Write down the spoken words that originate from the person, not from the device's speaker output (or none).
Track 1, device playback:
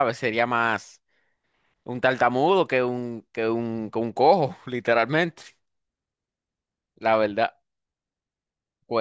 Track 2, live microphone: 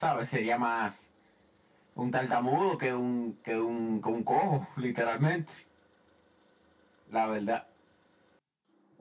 none